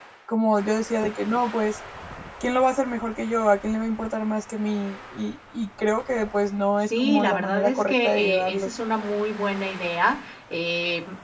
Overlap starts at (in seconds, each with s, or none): 6.9 s